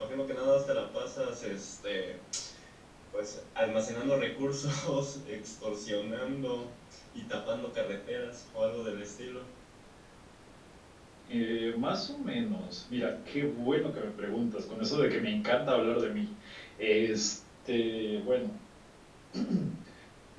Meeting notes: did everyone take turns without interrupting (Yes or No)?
Yes